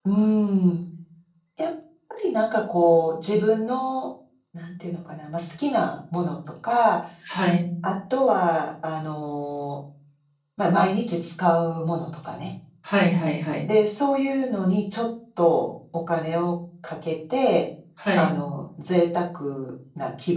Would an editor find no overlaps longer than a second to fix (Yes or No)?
Yes